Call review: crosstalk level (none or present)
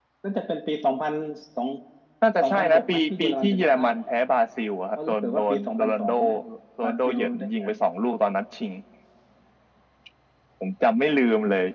present